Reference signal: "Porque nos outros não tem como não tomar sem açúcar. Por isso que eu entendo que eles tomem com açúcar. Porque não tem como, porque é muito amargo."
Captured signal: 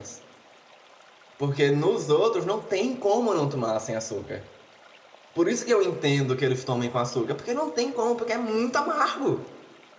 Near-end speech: none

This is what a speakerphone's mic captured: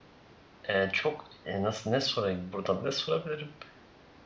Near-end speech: present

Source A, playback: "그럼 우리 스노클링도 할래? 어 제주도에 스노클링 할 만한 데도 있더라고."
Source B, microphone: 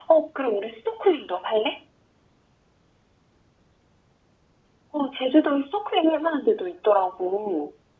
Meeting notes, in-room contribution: none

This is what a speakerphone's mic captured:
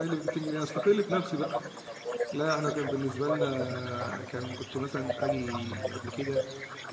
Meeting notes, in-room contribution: present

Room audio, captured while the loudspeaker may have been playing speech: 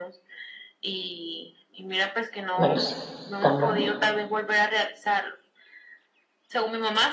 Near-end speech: present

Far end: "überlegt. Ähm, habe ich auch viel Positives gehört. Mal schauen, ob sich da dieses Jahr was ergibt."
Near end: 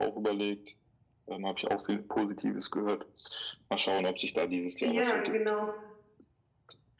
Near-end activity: present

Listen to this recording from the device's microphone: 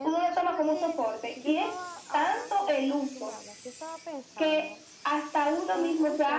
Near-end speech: present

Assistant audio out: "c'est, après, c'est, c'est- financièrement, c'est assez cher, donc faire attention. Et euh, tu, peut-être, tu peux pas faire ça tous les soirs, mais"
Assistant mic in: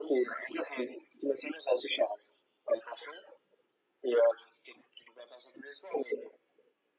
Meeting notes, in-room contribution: none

